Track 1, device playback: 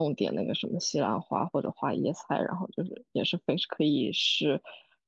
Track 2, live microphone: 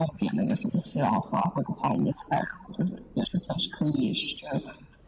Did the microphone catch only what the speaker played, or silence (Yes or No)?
Yes